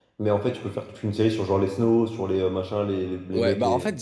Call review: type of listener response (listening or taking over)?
taking over